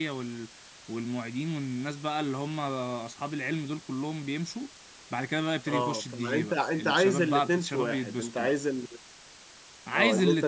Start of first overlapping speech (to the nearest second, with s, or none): 6 s